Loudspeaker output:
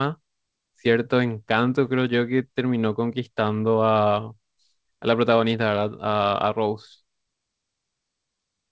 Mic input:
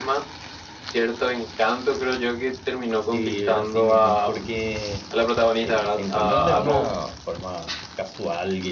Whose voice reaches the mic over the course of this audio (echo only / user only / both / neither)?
both